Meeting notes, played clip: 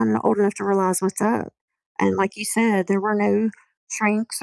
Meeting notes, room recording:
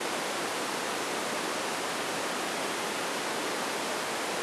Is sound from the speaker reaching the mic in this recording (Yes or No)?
No